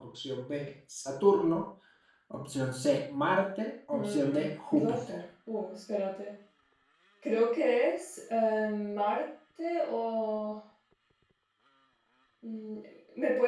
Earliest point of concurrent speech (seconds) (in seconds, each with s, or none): 3.9 s